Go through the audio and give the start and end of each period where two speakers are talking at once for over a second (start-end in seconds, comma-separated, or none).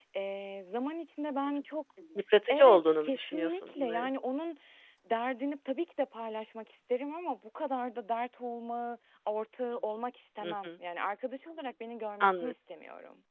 2.5-4.1